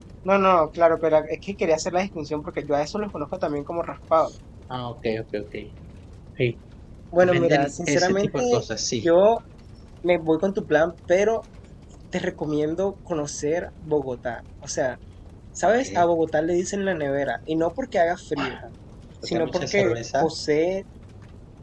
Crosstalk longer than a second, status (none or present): present